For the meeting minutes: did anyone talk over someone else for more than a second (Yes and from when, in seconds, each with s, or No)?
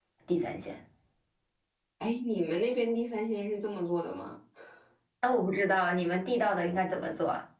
No